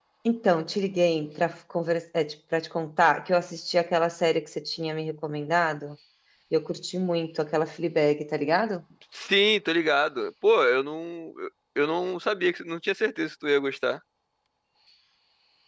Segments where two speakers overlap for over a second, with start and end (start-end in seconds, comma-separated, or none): none